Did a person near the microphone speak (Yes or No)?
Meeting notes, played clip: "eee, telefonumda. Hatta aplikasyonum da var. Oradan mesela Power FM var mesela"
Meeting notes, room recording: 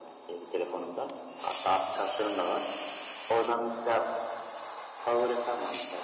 No